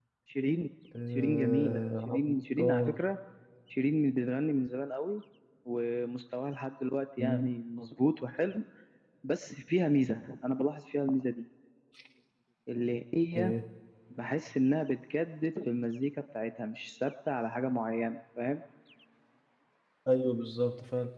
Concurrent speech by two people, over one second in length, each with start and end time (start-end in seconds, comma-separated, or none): 1.1-3.0